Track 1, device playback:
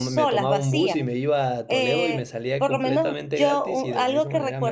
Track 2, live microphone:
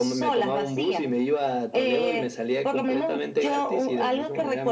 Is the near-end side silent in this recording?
Yes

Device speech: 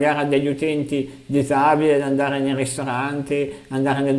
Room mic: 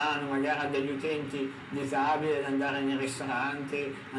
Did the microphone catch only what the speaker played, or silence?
Yes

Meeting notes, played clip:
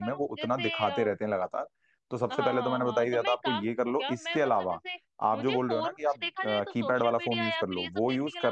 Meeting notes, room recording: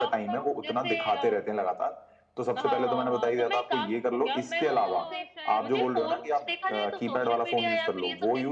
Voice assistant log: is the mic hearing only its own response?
No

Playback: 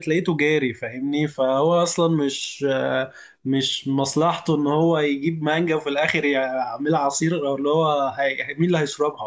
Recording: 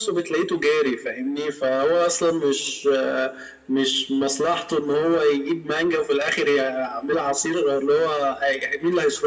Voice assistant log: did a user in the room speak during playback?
No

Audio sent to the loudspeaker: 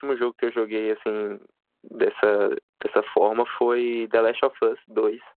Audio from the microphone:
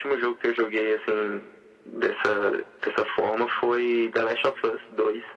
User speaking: No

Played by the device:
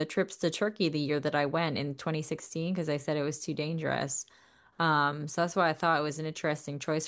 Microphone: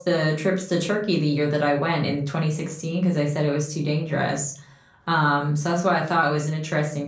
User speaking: No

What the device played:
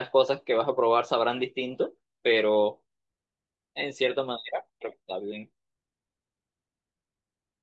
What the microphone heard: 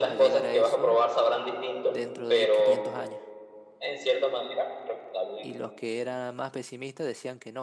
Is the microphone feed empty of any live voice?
No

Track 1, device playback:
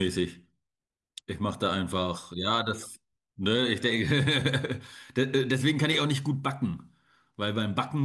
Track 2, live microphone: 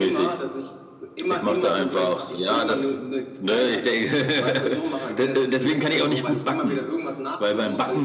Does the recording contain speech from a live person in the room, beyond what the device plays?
Yes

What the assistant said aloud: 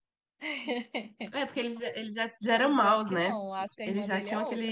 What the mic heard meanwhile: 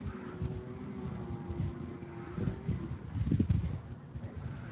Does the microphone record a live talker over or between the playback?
No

